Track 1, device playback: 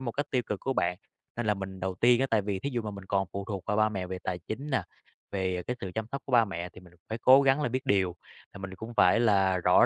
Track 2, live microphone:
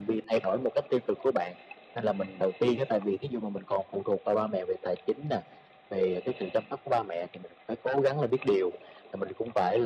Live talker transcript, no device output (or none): none